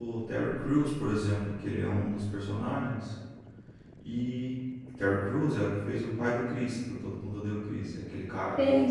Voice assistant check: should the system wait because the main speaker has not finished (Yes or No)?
No